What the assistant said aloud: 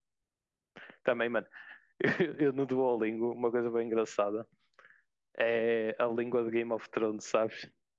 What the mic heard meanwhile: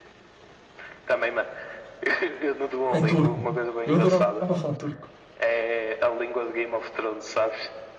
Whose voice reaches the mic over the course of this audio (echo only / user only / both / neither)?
both